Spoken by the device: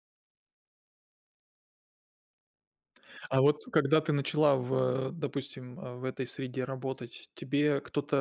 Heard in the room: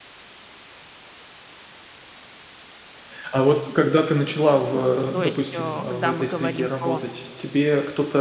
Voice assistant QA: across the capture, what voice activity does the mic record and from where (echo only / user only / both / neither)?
both